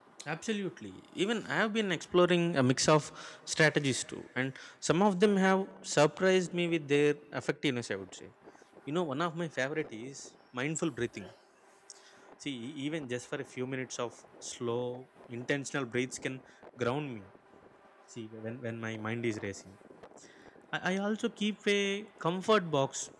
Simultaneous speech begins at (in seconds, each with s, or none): none